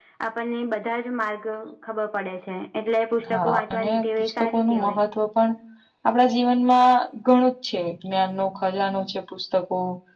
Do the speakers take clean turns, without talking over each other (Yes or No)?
No